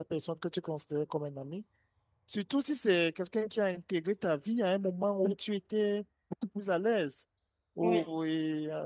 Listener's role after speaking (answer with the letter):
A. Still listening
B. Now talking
A